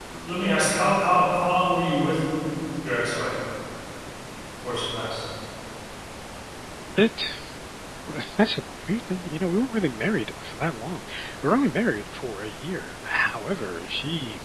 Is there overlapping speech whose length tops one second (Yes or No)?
No